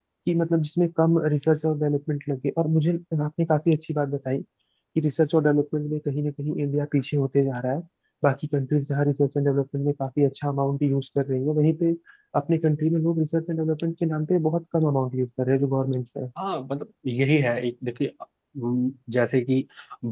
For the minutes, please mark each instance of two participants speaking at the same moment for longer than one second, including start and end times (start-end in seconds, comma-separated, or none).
none